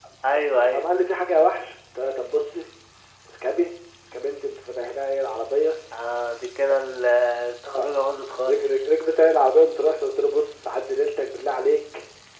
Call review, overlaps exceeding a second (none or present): none